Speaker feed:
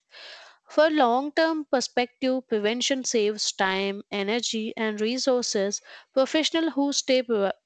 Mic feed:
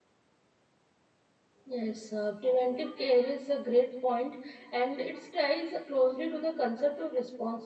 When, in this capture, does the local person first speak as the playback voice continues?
1.6 s

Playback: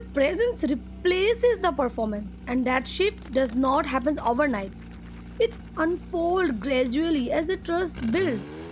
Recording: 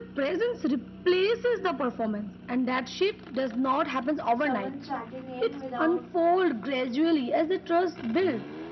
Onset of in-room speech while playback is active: 4.3 s

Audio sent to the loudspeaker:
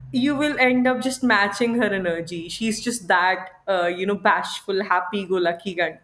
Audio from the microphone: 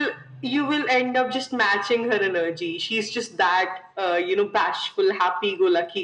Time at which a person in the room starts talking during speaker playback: none

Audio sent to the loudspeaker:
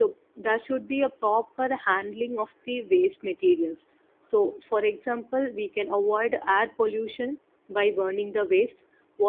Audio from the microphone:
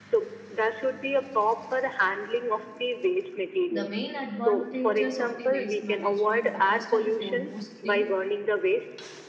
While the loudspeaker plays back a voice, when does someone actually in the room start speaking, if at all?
3.7 s

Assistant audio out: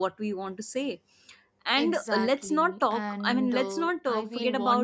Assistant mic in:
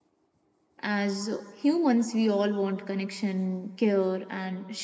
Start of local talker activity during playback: 0.8 s

